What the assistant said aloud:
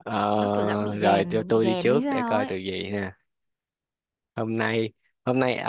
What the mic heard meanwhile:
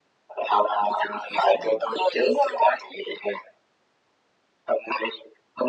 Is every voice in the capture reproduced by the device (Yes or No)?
Yes